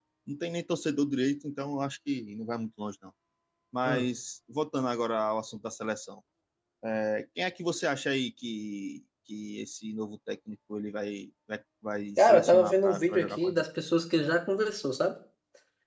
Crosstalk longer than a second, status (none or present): present